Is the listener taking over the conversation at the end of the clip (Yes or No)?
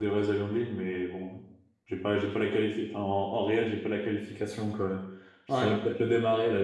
No